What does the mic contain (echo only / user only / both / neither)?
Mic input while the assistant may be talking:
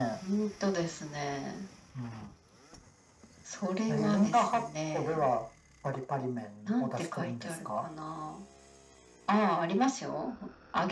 echo only